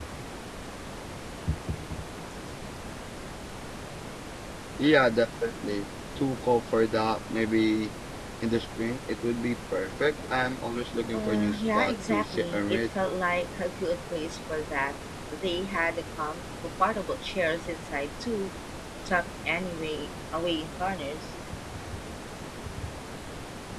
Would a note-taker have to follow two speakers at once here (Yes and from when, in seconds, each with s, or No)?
Yes, from 11.1 s